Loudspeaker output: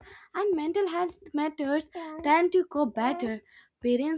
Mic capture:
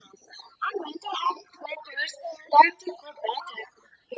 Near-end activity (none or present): none